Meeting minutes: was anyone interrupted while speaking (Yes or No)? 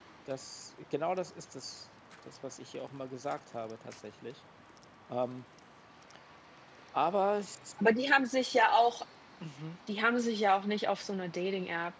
No